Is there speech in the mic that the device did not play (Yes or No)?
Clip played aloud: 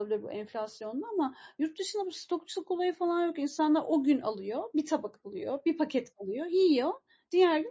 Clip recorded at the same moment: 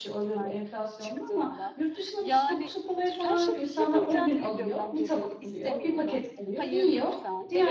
Yes